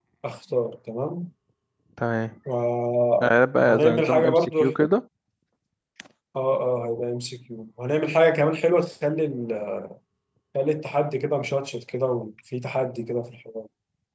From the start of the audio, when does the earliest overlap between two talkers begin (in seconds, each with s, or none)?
3.2 s